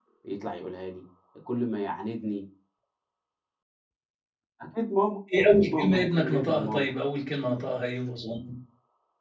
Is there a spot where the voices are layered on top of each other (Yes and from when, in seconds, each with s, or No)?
Yes, from 5.4 s